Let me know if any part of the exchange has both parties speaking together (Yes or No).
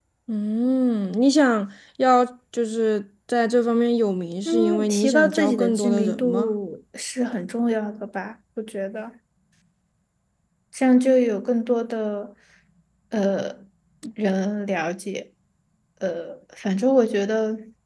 Yes